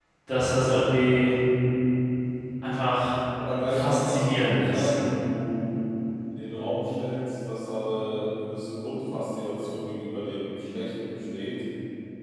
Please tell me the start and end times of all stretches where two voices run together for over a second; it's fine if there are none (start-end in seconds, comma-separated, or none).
3.6-4.9